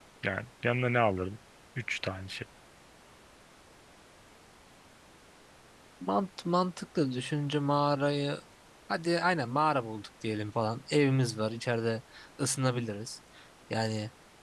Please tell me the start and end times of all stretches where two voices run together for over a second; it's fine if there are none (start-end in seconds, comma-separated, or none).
none